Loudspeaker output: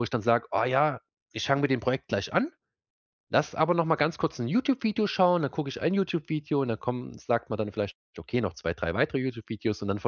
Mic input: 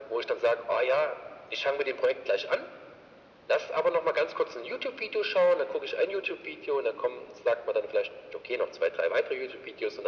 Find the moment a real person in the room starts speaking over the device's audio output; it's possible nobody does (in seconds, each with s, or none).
none